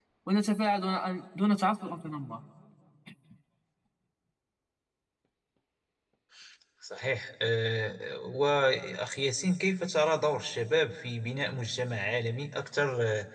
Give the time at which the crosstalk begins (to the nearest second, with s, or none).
none